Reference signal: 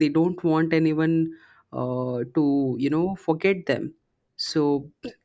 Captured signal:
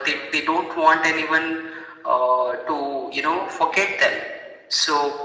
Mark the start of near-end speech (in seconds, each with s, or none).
none